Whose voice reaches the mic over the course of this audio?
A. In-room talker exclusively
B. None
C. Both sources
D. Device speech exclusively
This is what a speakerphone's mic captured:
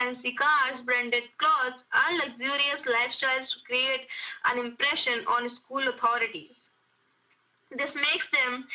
D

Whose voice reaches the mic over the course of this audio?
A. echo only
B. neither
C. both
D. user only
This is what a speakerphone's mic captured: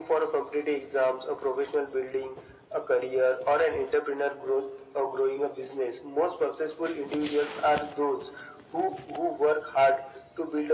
A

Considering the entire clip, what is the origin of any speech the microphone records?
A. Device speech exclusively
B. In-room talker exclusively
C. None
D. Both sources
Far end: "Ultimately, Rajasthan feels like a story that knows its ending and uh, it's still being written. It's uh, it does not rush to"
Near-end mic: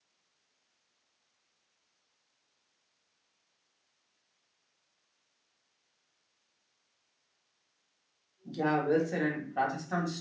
B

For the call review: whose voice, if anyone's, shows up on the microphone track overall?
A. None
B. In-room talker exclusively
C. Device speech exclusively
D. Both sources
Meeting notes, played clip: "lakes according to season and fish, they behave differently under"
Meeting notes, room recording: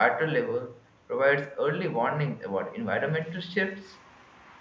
B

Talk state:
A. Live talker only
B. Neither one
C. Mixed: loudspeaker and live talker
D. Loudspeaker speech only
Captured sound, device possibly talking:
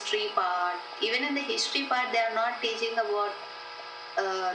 D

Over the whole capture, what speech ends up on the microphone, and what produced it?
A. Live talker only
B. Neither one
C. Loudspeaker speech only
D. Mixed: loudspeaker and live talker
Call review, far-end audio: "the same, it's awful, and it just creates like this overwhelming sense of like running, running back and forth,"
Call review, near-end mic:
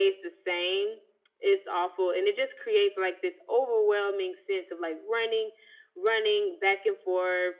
C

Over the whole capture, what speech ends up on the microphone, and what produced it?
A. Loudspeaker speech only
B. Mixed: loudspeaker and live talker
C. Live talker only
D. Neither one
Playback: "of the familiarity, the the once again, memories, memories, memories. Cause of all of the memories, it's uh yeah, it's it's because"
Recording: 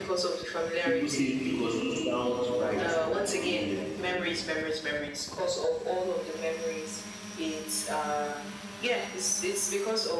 B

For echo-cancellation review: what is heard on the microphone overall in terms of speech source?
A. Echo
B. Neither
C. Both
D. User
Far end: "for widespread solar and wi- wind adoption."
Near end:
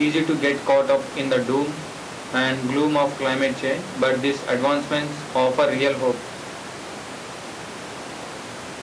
D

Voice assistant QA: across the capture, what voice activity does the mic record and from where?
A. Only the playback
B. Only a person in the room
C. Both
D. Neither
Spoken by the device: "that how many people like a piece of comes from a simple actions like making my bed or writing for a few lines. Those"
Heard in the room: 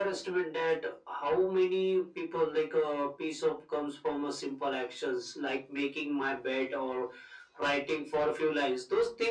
A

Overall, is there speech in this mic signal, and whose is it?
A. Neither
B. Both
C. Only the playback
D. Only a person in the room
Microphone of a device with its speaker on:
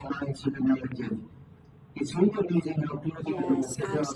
B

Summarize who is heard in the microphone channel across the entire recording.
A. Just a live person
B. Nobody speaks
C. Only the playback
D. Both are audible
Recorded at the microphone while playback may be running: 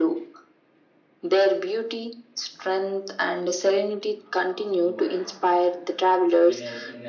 D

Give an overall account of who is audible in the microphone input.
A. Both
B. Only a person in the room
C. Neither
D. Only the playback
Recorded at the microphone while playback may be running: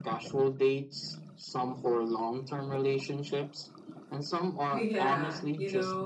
A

